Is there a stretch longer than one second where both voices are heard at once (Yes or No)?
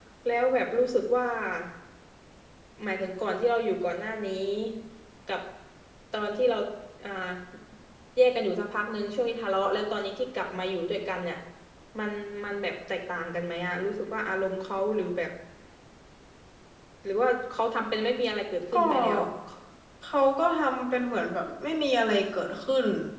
No